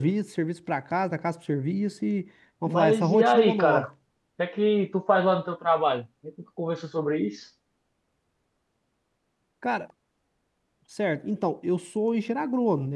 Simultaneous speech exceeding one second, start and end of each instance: 2.7-3.9

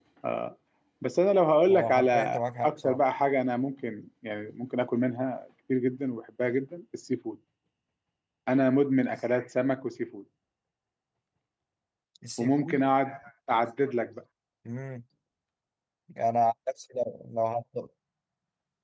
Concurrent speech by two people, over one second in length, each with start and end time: 1.7-3.0

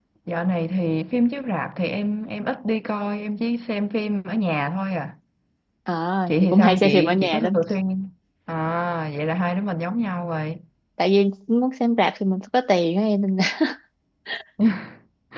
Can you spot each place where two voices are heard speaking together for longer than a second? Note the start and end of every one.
6.3-7.6

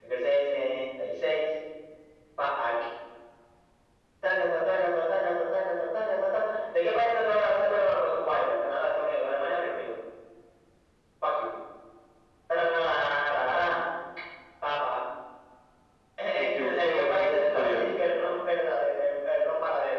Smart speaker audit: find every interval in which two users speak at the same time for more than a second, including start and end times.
16.4-17.9

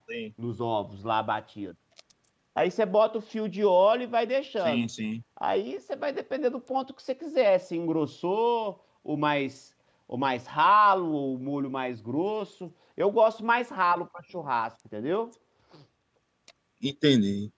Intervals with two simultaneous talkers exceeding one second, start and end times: none

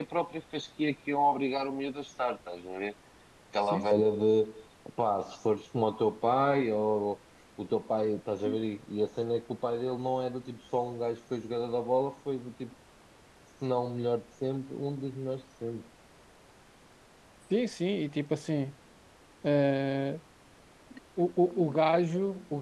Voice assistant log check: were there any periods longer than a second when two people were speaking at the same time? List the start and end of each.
none

